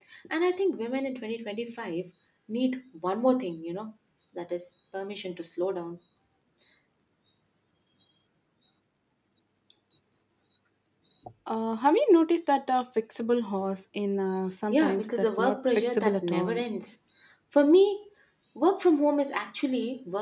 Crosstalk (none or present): present